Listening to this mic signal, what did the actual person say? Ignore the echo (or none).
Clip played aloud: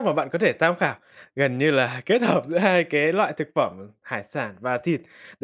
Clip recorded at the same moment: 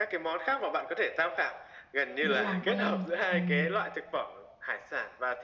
Dễ làm quen. Ừm,